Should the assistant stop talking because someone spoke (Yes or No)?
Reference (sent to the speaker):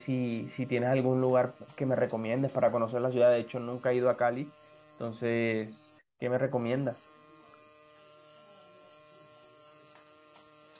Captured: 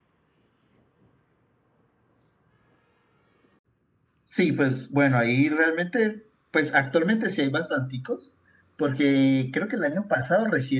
Yes